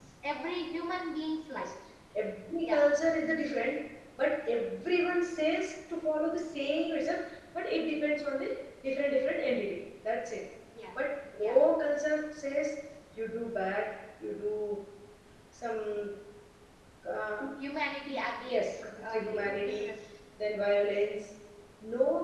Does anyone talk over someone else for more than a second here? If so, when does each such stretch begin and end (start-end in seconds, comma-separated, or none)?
18.5-19.9